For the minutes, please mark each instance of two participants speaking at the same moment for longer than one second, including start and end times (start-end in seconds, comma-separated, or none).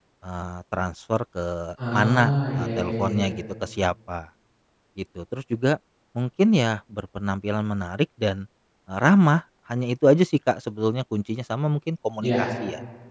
1.9-3.2